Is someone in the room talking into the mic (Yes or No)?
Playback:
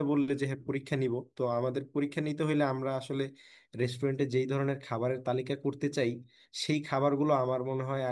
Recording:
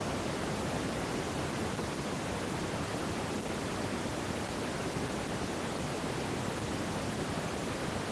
No